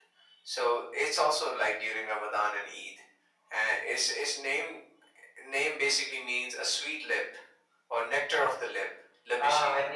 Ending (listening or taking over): taking over